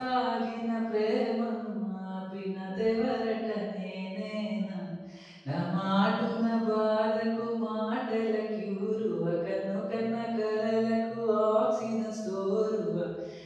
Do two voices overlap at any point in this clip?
No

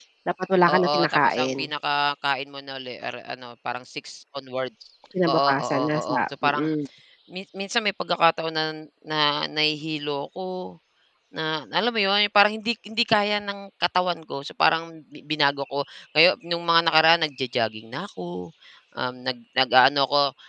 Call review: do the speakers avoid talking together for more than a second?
No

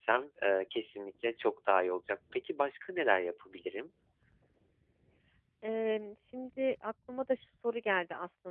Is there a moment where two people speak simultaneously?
No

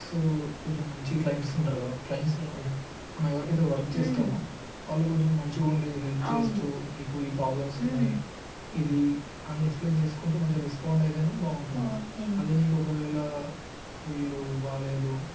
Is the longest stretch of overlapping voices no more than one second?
Yes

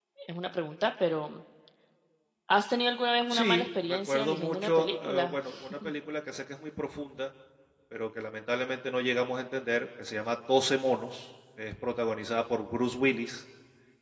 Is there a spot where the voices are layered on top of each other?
Yes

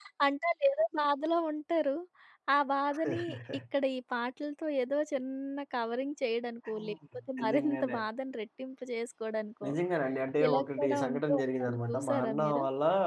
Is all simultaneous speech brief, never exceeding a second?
No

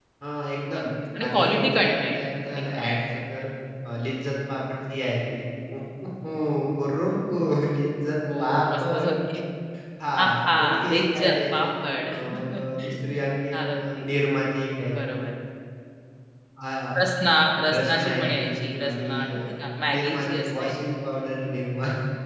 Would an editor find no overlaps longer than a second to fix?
No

